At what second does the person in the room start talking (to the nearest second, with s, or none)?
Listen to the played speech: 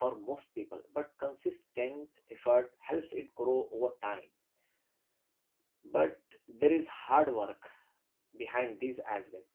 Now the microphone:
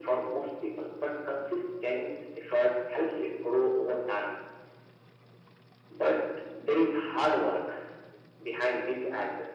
none